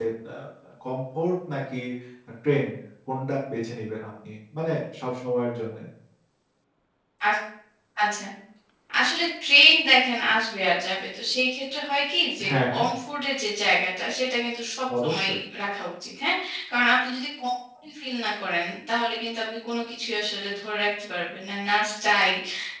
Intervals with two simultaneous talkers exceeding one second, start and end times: none

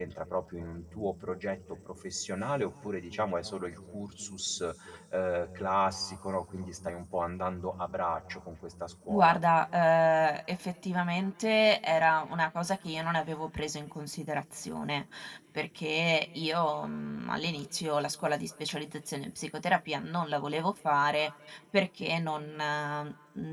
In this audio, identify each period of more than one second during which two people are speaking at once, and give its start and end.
none

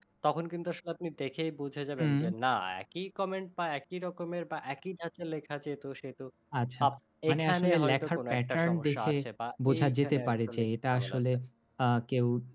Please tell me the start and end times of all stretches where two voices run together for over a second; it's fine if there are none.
7.3-9.1, 9.7-11.2

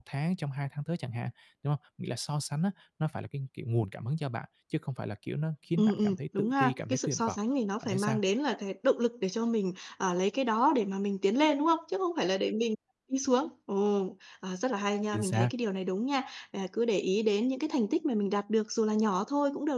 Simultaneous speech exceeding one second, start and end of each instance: 5.8-7.4

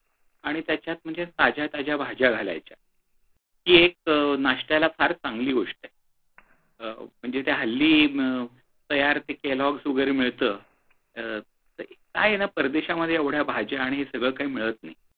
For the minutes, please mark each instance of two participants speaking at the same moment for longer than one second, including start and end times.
none

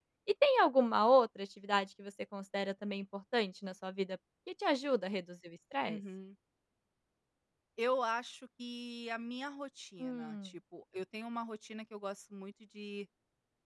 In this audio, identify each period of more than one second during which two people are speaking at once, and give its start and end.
none

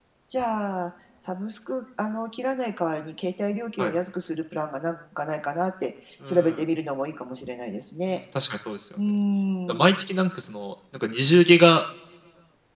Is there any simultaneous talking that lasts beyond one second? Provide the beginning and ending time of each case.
none

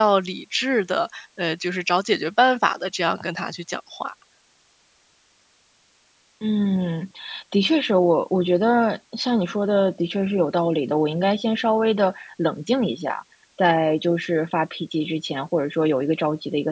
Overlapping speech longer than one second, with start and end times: none

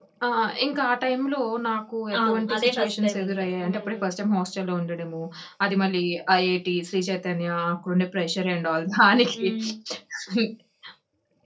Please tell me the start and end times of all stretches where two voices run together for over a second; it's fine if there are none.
2.2-4.0

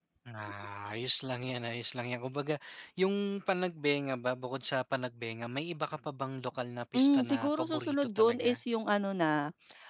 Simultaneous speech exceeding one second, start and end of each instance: 6.9-8.6

